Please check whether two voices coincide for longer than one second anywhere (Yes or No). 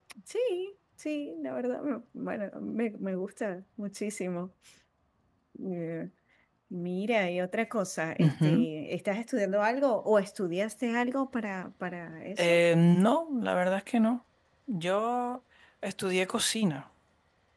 No